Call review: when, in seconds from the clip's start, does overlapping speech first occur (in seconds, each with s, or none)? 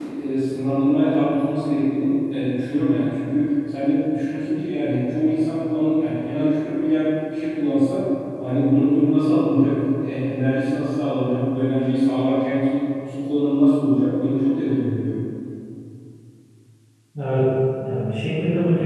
none